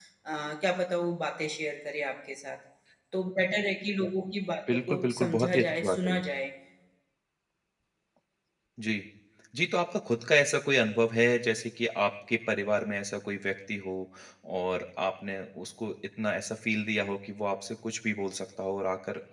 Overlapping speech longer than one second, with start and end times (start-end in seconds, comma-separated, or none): 4.7-6.2